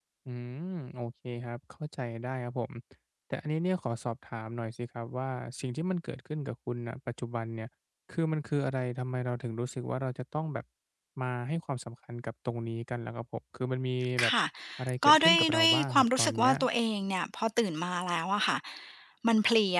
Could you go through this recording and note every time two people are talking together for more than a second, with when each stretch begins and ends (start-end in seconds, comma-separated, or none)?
15.0-16.5